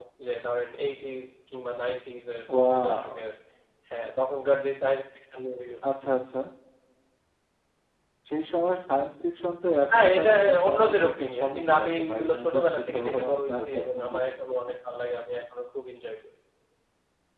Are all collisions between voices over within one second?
No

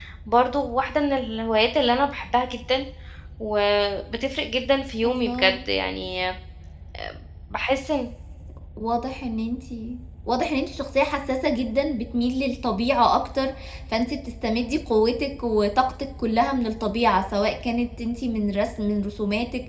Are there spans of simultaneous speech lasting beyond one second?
No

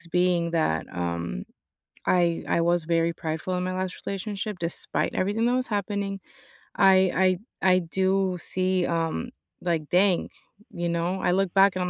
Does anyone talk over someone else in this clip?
No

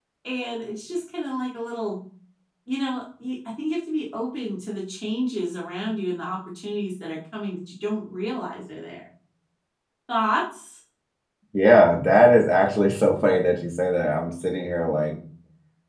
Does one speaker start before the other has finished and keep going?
No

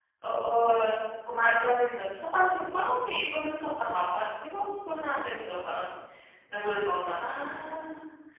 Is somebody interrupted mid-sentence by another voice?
No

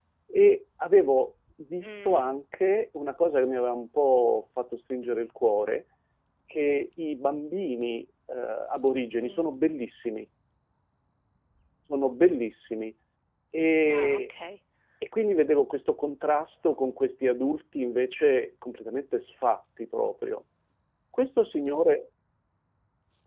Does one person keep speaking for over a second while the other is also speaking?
No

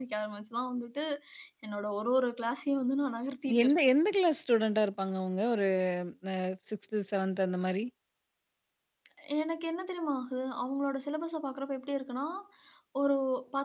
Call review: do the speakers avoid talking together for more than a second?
Yes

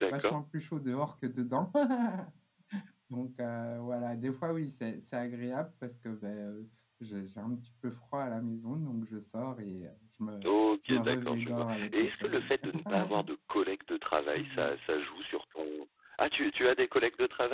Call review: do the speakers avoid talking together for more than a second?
No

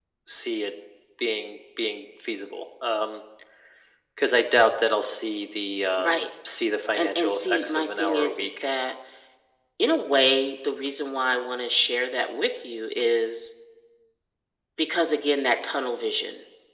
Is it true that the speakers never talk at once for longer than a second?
No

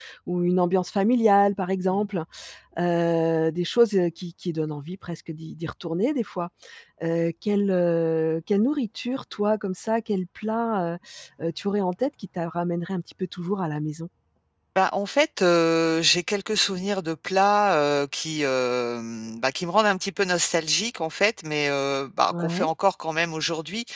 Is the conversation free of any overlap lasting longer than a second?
Yes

